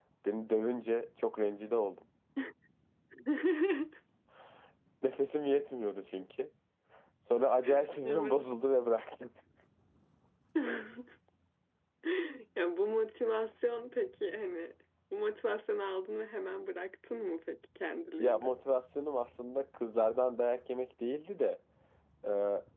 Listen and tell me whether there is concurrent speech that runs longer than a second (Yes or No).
No